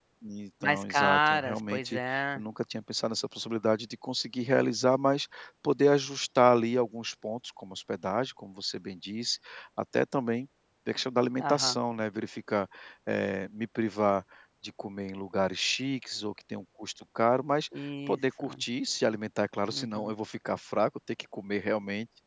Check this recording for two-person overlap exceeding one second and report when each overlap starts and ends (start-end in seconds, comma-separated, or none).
0.6-2.4